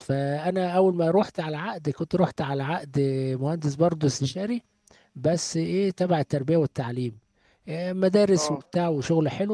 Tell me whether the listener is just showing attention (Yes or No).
Yes